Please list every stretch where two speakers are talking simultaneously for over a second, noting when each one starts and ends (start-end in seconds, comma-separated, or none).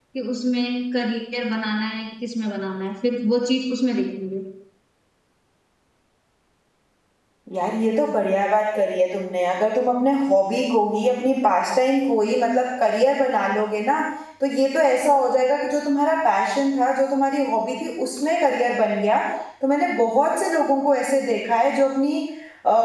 none